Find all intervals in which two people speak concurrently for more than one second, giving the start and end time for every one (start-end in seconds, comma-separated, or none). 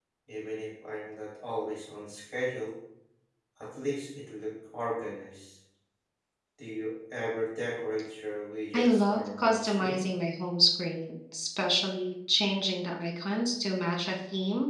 8.7-10.0